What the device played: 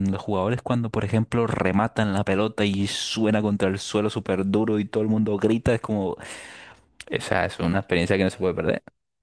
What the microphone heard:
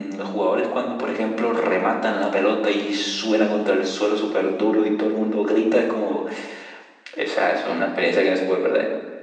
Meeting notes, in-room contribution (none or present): none